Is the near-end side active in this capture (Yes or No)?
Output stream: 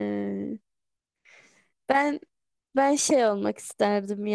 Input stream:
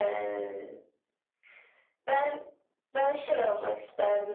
No